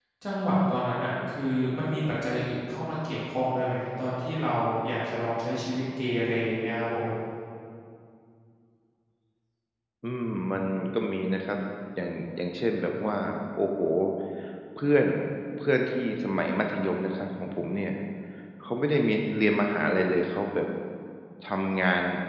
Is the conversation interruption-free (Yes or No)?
Yes